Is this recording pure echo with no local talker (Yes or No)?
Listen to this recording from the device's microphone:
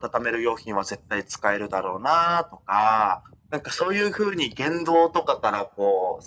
Yes